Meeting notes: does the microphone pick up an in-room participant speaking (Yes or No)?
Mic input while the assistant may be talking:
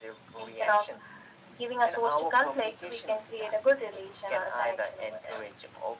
No